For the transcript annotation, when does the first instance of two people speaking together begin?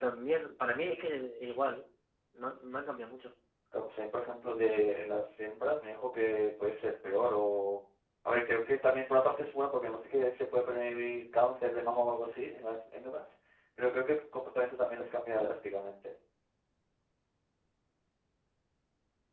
none

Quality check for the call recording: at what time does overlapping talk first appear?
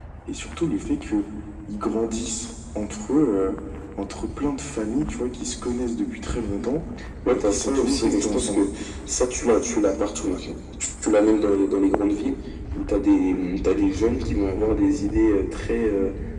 7.3 s

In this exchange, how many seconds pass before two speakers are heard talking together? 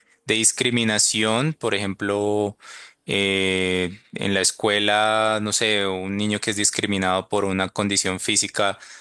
none

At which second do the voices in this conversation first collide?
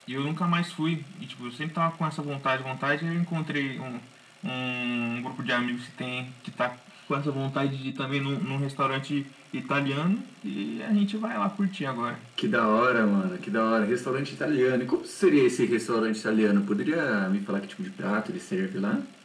none

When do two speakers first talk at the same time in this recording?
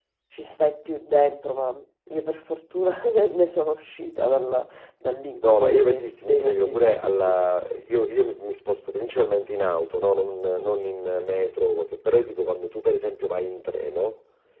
5.4 s

